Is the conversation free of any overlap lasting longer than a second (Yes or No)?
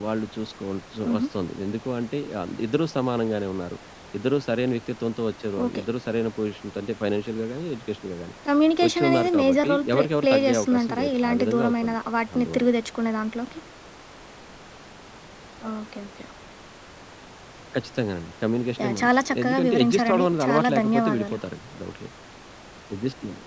No